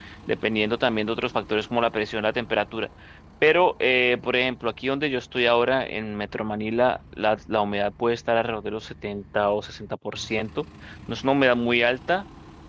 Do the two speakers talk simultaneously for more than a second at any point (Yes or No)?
No